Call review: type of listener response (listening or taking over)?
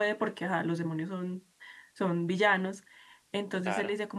listening